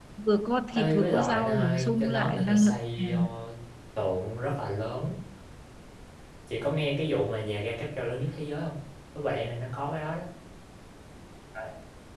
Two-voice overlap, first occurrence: 0.8 s

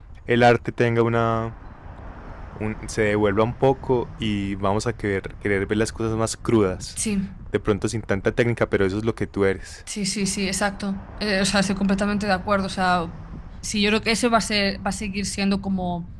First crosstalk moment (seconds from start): none

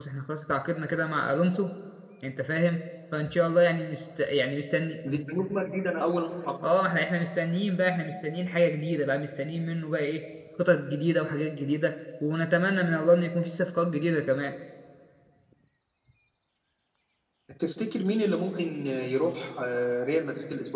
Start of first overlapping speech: none

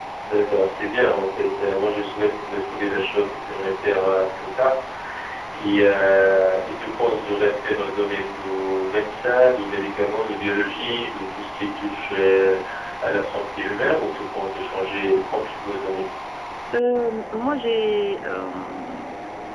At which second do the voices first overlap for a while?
none

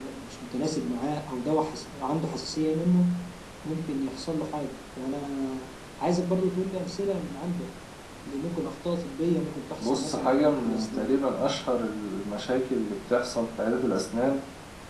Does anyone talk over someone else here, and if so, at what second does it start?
9.8 s

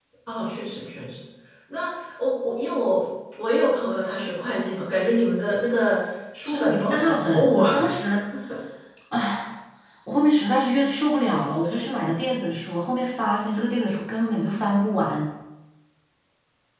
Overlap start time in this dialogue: 6.5 s

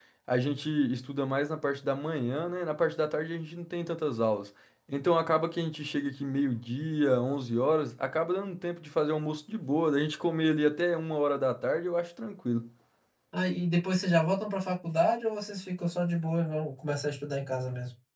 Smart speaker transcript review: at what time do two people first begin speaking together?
none

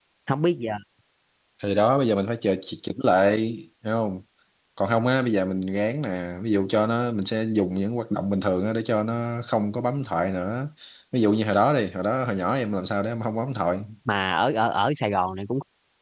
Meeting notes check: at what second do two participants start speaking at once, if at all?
none

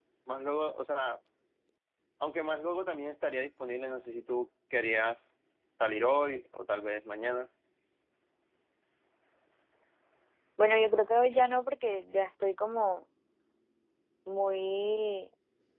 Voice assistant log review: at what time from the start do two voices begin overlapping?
none

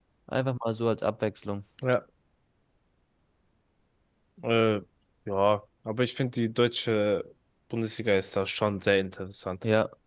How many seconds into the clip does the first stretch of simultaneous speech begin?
none

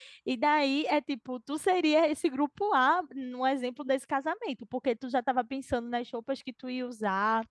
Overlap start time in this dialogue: none

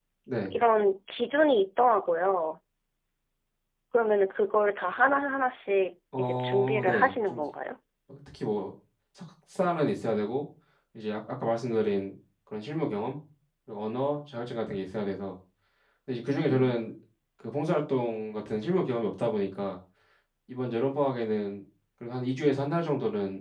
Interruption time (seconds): 6.1 s

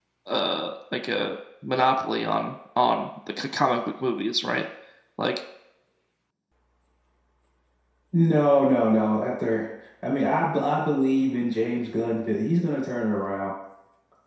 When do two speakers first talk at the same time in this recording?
none

